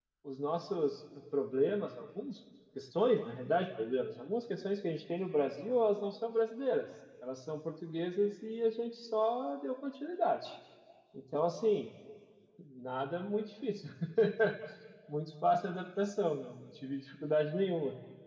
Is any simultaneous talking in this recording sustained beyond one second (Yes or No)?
No